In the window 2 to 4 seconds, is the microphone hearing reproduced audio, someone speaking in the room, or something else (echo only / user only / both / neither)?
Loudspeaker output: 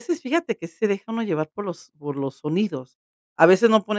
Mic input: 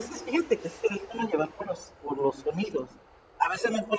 echo only